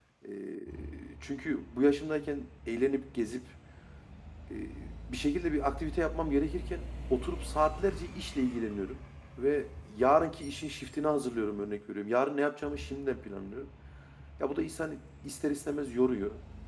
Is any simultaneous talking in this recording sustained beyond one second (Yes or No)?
No